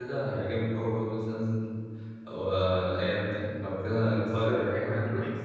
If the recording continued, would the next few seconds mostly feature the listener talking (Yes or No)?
Yes